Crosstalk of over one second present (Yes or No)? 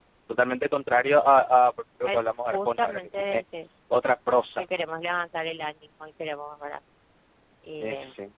Yes